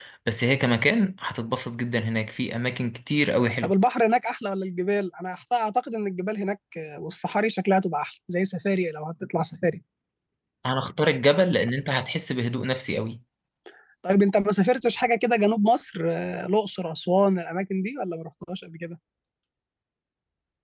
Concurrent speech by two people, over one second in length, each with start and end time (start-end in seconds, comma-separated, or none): none